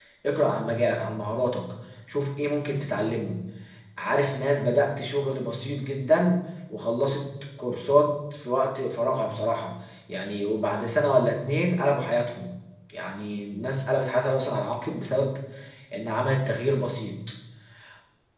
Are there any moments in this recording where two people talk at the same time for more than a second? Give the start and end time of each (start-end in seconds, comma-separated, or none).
none